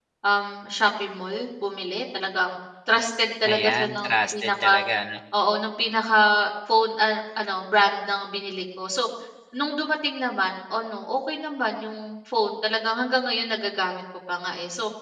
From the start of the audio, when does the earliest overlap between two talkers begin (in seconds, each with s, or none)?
3.4 s